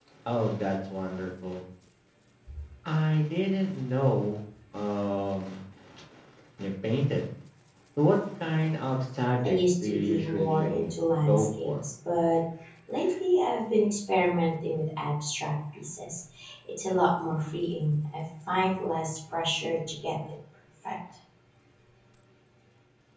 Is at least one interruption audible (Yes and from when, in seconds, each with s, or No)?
Yes, from 9.4 s